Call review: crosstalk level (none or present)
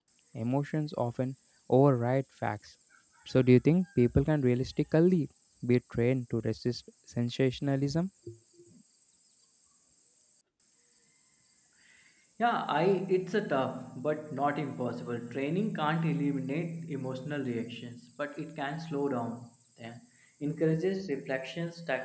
none